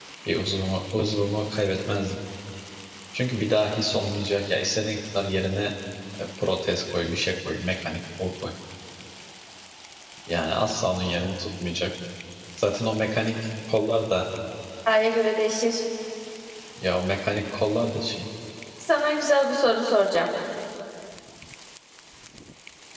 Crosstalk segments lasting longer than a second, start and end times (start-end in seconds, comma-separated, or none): none